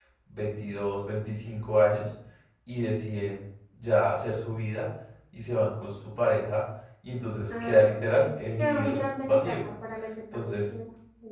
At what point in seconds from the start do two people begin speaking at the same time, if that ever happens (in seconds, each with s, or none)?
7.5 s